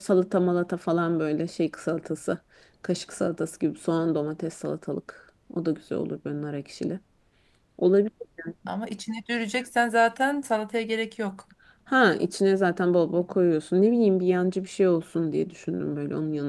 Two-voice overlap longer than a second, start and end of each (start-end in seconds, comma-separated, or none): none